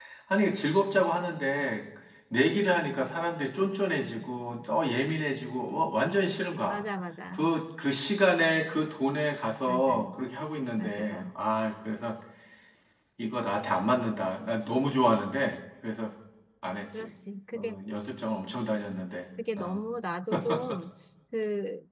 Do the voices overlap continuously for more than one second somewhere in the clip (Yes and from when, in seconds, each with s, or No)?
No